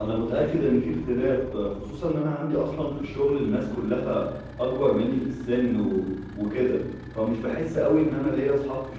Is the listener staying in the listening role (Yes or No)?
Yes